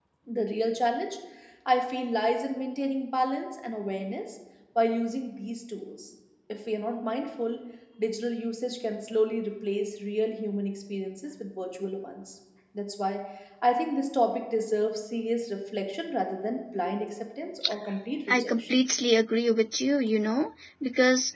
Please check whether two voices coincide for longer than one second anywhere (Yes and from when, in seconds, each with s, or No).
No